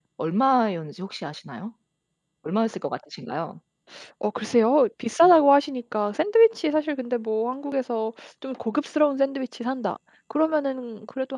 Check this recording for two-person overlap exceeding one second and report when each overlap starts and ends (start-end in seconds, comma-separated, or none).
none